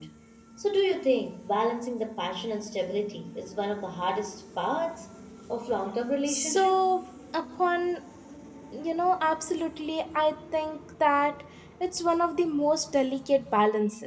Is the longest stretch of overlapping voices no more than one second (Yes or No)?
Yes